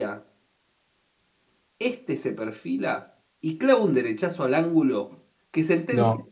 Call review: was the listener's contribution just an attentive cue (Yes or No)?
Yes